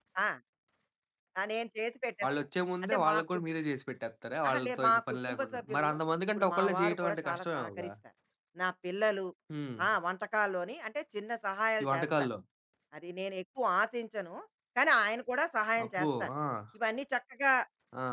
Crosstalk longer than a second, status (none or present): present